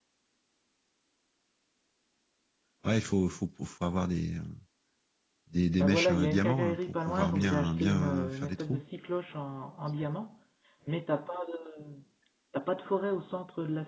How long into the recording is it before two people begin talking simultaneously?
5.8 s

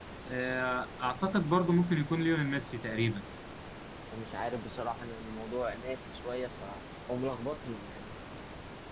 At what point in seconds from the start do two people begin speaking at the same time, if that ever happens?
none

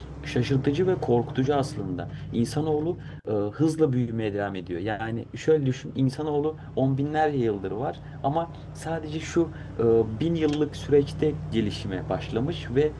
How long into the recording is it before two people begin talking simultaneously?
none

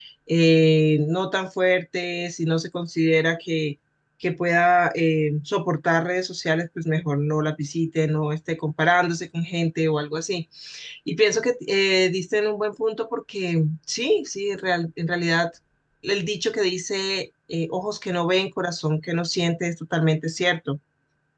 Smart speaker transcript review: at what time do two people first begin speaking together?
none

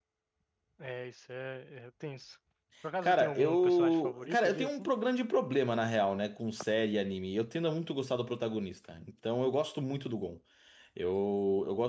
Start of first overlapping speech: 3.0 s

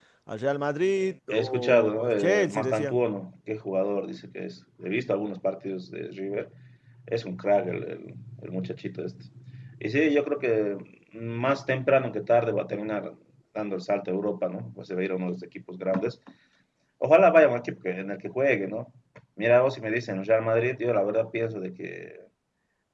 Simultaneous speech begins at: 1.3 s

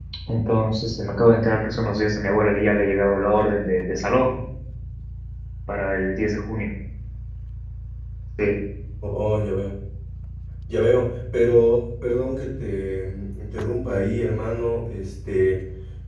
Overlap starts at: none

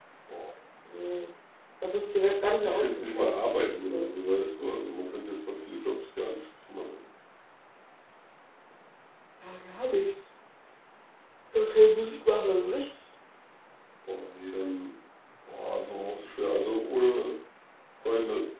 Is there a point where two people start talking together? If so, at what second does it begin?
2.6 s

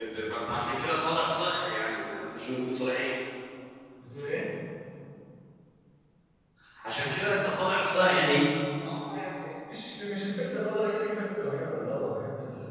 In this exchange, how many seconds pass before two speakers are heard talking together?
none

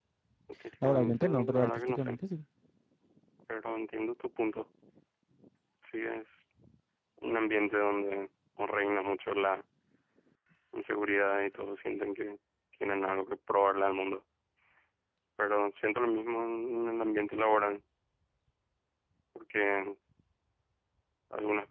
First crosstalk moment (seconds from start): 0.8 s

